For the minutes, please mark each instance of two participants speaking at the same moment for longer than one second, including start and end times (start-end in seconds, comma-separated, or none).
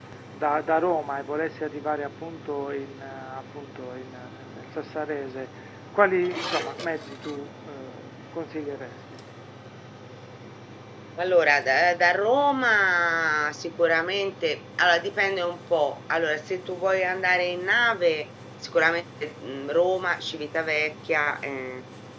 none